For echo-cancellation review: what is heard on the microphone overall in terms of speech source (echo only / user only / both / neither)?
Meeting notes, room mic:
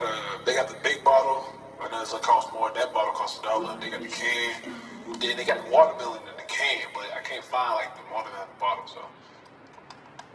both